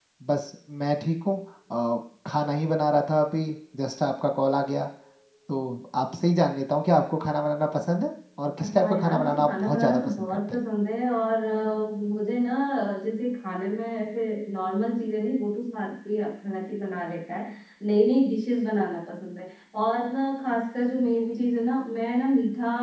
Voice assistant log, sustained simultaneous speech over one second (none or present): present